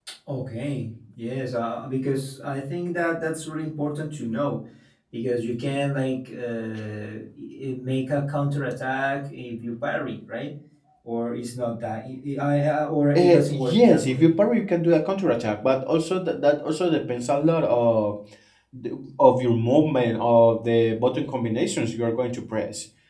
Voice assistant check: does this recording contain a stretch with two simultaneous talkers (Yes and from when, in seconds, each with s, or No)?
Yes, from 13.2 s